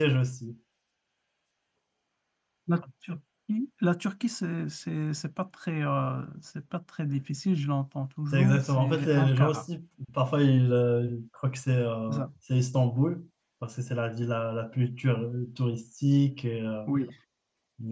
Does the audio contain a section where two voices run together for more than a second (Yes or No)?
Yes